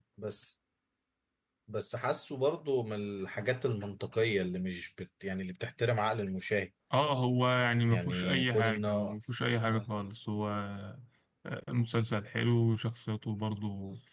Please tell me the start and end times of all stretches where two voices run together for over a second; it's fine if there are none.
7.9-9.1

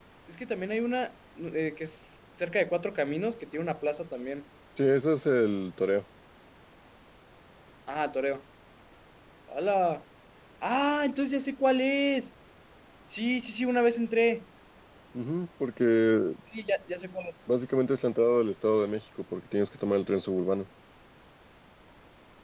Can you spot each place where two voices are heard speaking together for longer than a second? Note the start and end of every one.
none

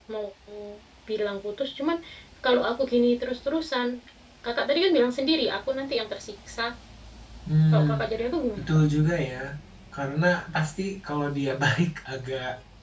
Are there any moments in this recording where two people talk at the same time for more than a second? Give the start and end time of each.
none

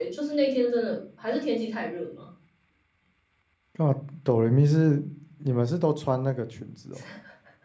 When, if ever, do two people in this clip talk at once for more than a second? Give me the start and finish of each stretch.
none

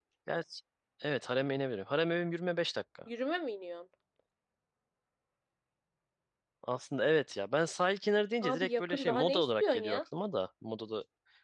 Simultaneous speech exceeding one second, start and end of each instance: 8.4-10.0

